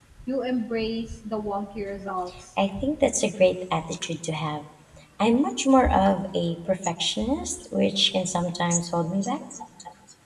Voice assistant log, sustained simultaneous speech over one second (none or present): none